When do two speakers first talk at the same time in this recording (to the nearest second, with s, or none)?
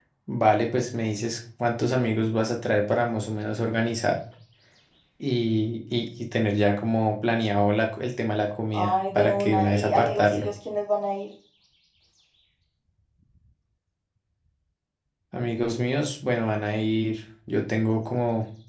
9 s